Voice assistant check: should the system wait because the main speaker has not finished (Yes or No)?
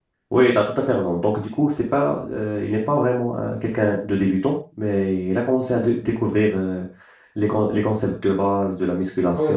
No